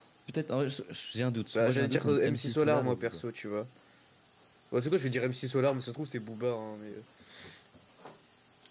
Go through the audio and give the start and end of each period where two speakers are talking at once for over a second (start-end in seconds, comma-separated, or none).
1.6-3.2